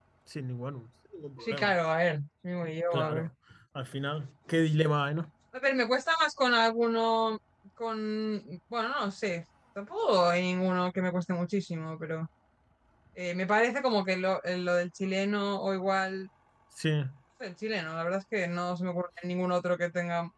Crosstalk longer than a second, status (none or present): none